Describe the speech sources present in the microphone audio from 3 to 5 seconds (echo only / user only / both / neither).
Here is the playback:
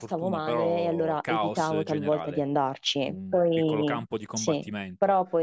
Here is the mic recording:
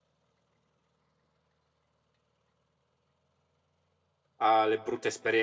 user only